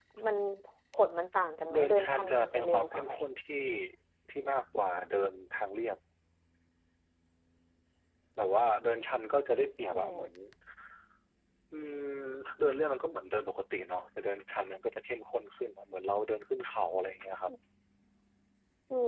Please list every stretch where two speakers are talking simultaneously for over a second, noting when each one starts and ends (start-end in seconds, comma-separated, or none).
1.7-3.1